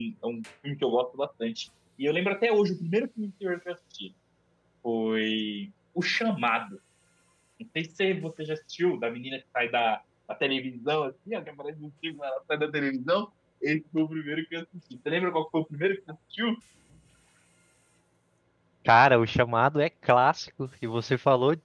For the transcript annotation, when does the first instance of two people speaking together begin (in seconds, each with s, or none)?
none